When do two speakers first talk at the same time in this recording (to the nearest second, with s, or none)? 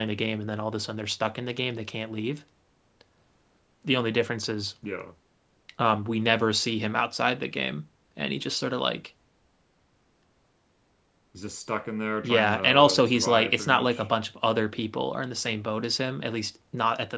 12 s